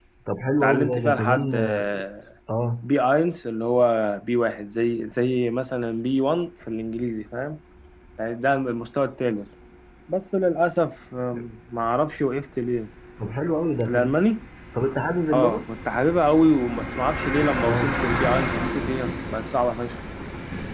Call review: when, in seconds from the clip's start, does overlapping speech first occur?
0.6 s

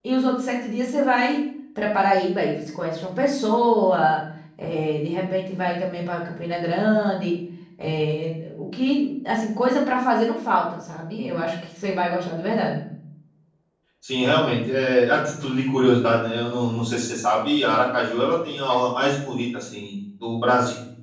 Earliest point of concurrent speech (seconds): none

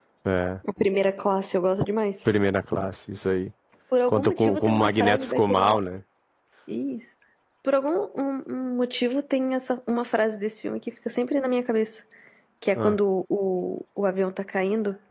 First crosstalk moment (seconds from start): 4.1 s

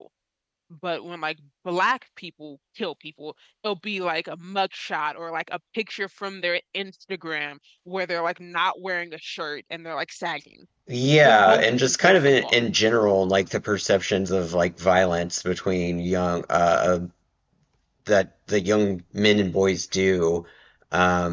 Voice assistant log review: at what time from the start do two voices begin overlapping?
11.2 s

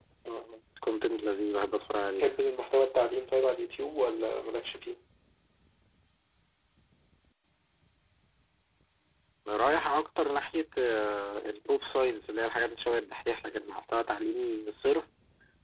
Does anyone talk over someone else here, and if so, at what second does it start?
none

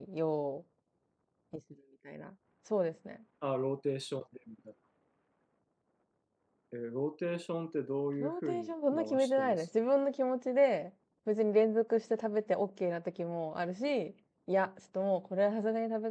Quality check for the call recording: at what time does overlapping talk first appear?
8.2 s

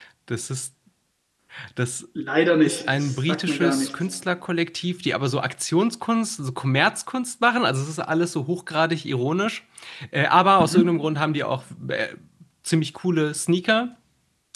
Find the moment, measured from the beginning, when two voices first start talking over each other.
2.6 s

